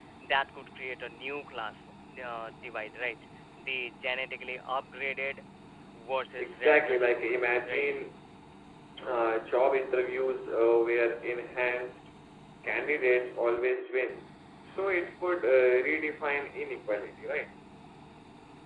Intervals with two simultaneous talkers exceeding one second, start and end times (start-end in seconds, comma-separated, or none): 6.4-7.8